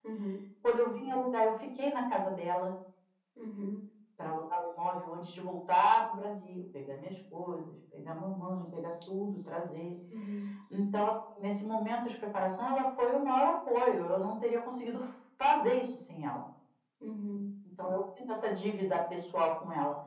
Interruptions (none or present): none